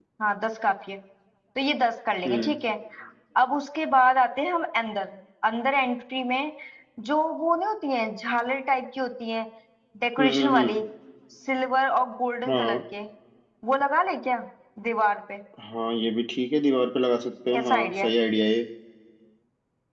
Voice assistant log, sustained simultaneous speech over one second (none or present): none